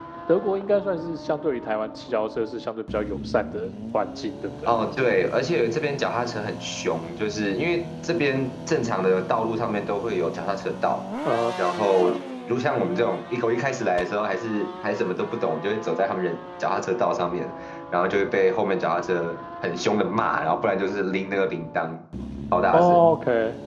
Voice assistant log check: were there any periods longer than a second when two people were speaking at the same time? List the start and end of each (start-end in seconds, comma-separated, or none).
none